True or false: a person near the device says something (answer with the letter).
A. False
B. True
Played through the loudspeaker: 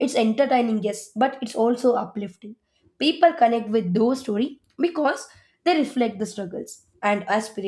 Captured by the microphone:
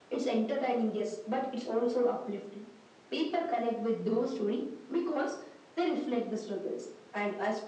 A